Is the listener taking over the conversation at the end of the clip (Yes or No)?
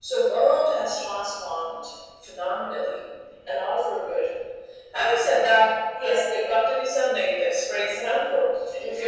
No